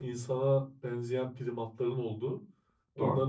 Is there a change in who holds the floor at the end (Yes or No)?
No